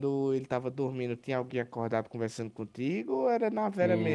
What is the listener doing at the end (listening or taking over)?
taking over